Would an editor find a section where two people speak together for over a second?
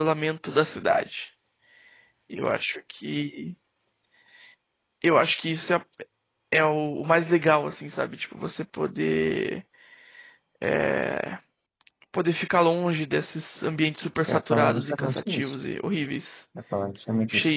Yes, from 14.3 s

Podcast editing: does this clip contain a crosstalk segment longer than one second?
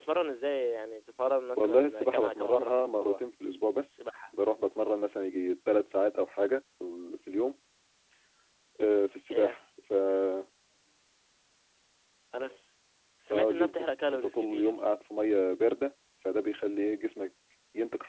Yes, from 1.6 s

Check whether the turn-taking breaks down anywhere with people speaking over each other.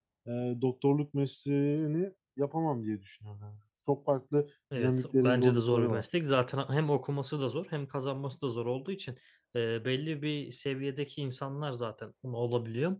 Yes, from 4.7 s

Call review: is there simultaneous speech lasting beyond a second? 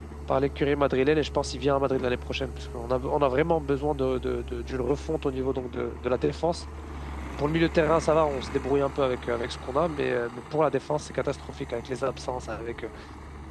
No

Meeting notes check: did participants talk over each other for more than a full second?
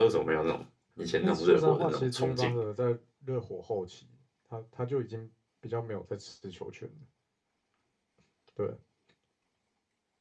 Yes, from 1.2 s

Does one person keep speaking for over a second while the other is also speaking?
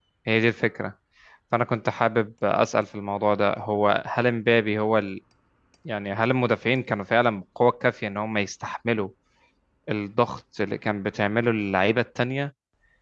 No

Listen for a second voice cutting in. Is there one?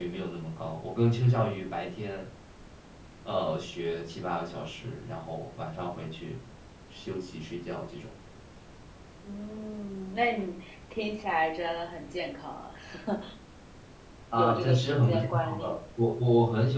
Yes, from 14.4 s

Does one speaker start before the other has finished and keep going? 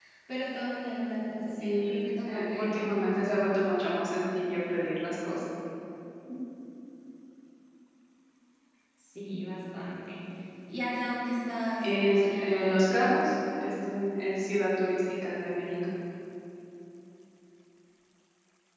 Yes, from 1.6 s

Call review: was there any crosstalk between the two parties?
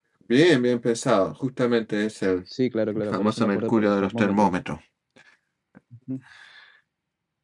Yes, from 3.1 s

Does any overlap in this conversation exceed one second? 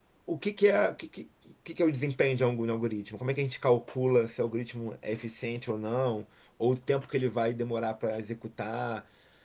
No

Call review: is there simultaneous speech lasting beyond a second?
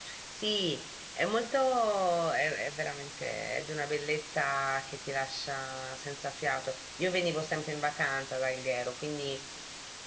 No

